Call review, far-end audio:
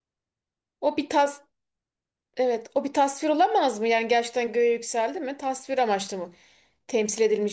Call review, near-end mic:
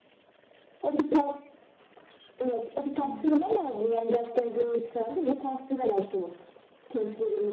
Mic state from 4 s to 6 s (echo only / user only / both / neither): echo only